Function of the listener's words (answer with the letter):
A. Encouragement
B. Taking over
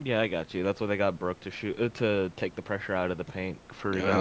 B